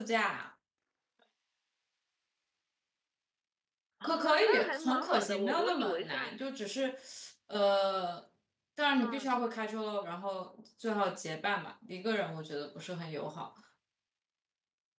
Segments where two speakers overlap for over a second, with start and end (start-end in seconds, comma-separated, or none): 4.0-6.3